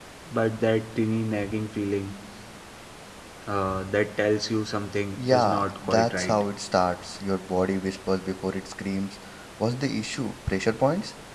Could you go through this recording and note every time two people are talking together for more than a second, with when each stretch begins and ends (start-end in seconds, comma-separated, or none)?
5.2-6.4